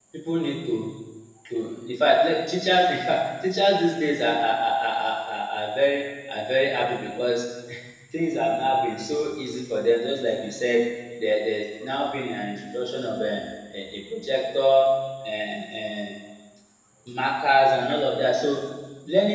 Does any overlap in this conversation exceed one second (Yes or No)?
No